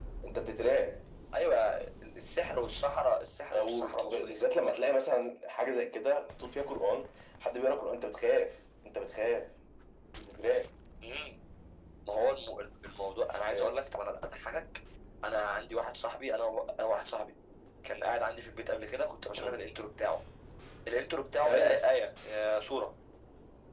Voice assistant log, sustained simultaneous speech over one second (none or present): present